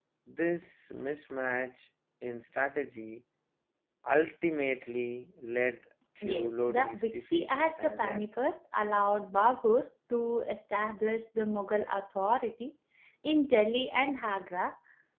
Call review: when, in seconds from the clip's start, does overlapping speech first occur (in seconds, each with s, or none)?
6.2 s